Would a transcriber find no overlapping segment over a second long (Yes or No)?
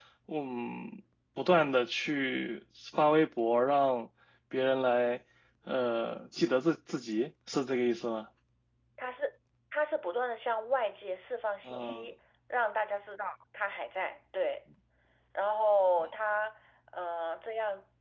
Yes